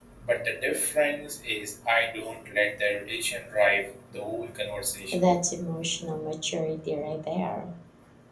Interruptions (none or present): none